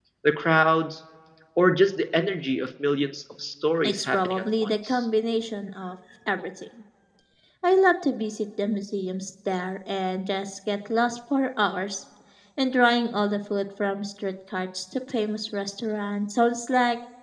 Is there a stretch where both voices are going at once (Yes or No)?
Yes